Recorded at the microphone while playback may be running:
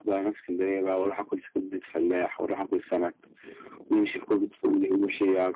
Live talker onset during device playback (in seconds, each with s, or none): none